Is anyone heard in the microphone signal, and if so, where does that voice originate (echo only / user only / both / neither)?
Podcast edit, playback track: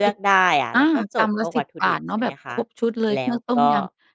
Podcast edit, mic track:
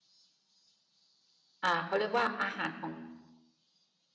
user only